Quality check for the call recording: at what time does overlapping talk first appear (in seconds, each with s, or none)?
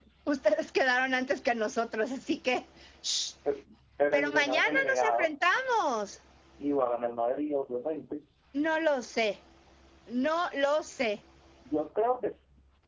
4.1 s